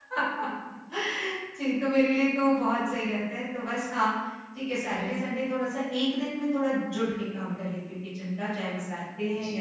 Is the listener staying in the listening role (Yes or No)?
No